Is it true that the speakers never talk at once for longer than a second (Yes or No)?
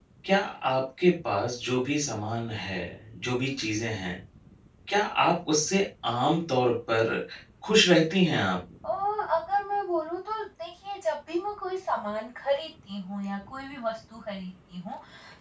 Yes